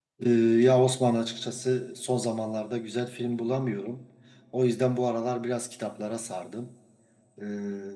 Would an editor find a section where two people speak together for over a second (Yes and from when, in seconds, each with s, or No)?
No